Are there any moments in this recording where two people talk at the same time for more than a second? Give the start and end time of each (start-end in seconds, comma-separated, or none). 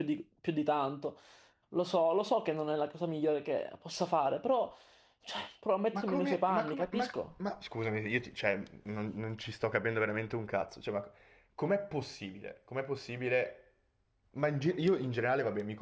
5.9-7.3